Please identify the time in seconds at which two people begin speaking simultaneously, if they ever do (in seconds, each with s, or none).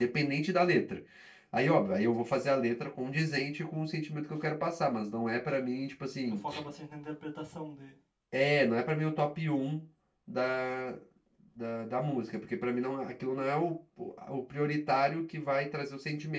none